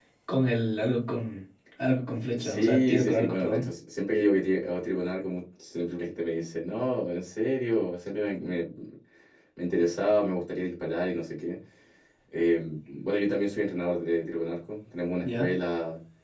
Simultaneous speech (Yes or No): Yes